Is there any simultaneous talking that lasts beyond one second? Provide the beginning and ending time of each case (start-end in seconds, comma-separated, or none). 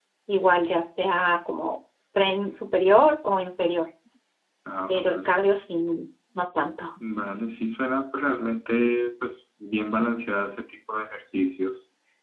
none